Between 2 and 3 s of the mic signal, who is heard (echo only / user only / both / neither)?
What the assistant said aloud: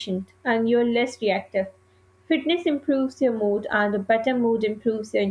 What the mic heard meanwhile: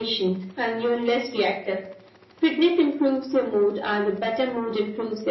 echo only